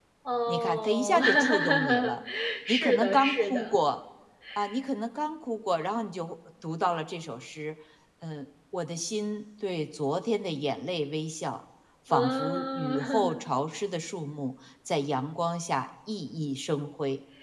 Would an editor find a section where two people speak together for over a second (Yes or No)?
Yes